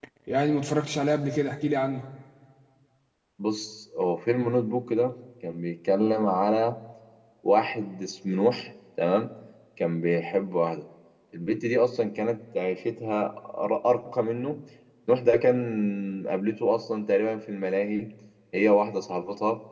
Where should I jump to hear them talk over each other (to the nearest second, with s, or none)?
none